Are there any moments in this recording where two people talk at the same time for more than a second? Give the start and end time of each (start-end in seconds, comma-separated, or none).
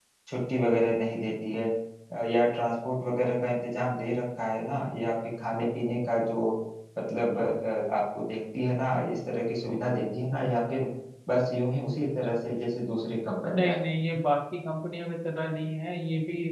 none